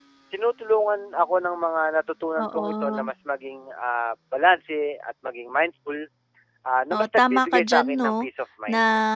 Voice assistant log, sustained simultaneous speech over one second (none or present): present